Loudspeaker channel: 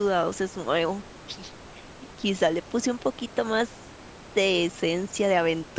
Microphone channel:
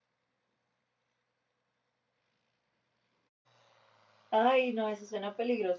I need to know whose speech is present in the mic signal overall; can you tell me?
user only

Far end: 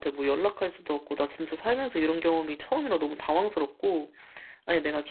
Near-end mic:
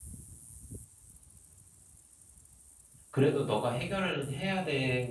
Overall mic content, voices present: user only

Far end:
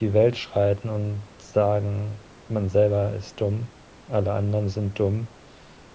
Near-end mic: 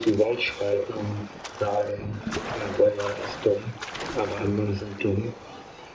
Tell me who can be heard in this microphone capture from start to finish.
echo only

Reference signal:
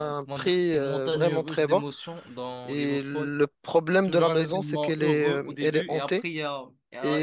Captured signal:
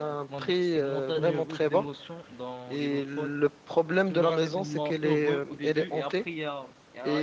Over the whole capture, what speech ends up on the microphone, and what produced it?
echo only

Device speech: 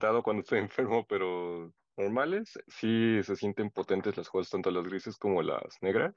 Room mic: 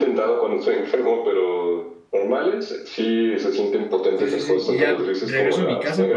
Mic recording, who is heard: both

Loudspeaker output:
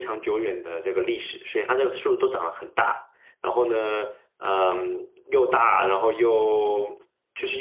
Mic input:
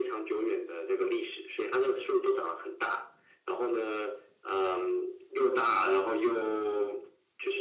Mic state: echo only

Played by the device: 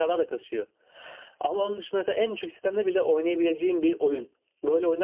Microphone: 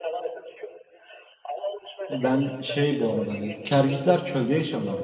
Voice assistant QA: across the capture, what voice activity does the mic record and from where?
both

